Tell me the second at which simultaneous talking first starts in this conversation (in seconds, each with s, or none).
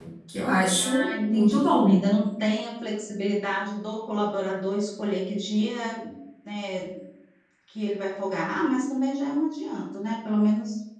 0.8 s